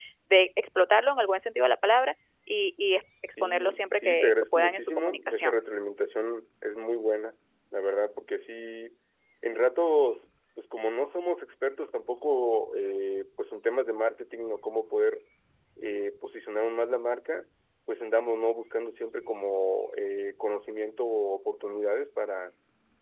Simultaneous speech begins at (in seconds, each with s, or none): 3.4 s